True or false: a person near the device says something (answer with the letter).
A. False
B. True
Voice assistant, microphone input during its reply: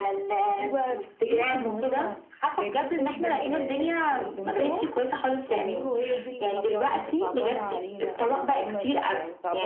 B